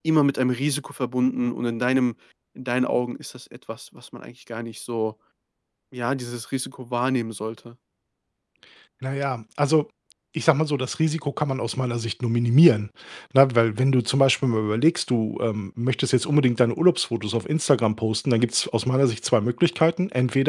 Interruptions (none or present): none